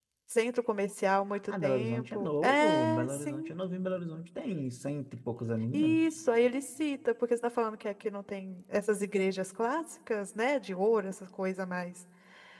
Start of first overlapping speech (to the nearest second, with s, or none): 2 s